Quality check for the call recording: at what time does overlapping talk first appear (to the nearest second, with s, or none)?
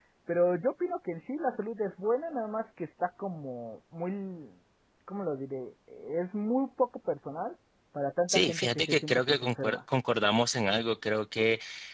8 s